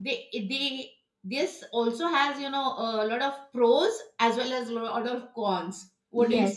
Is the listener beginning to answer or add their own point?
Yes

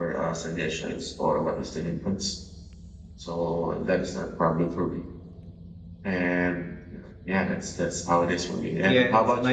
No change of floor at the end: No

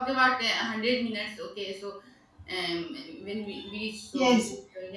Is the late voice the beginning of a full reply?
Yes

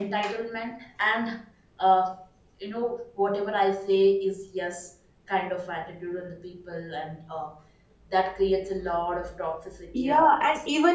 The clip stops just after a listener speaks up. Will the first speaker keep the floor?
No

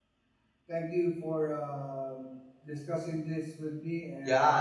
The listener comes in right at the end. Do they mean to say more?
Yes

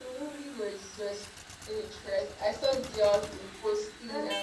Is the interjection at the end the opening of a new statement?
No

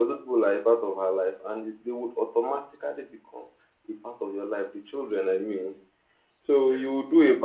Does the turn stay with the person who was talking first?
Yes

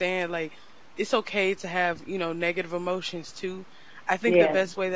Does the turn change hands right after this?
No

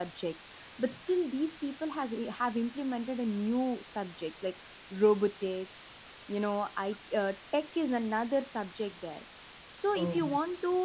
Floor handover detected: No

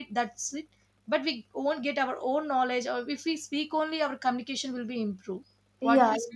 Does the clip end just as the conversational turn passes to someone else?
Yes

